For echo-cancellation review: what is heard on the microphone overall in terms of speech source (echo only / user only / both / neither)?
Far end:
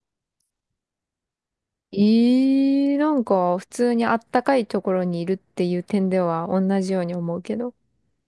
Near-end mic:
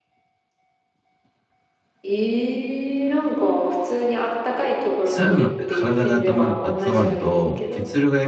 both